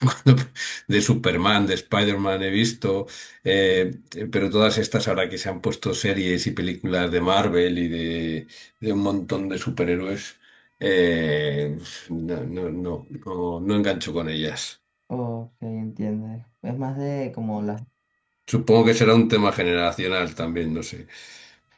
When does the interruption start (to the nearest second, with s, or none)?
none